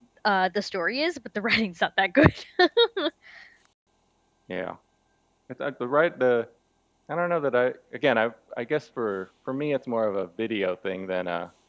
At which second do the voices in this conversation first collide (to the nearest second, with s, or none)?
none